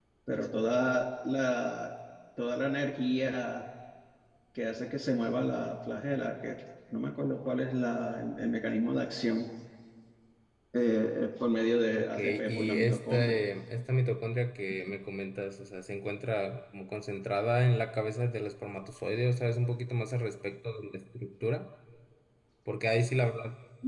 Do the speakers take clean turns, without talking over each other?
No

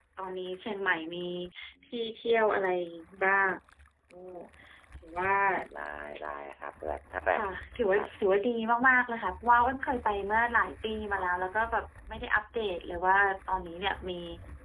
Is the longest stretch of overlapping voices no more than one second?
Yes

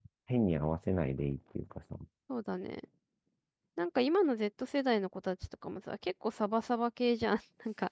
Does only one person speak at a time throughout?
Yes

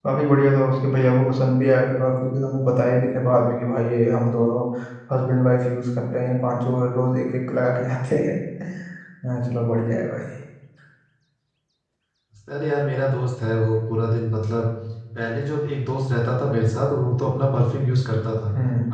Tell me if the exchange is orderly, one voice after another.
Yes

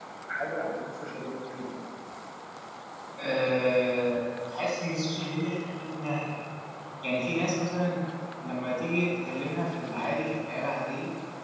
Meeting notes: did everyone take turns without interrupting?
Yes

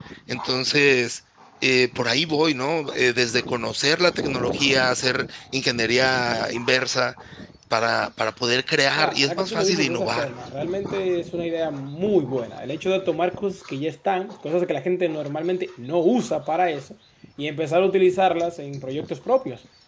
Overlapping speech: Yes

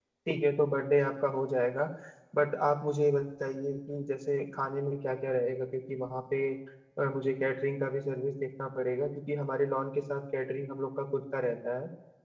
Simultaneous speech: No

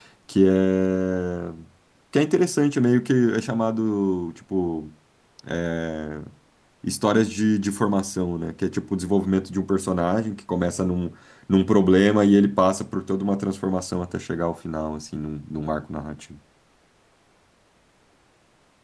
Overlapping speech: No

